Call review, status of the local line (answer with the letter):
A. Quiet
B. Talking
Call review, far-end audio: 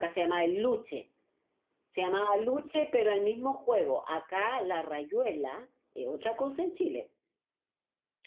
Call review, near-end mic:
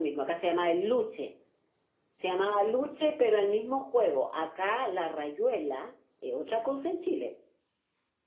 A